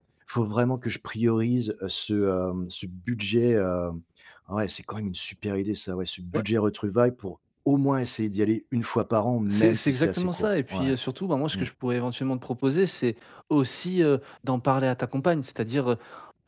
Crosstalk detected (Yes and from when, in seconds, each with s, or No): Yes, from 9.5 s